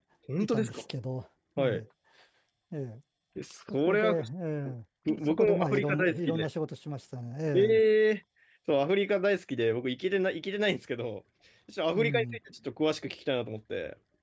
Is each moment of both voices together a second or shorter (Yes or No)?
No